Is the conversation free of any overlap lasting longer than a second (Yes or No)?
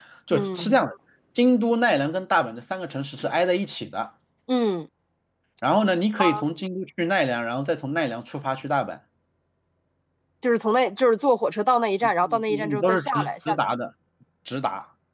No